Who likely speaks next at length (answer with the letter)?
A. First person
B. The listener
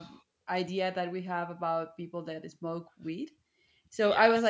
A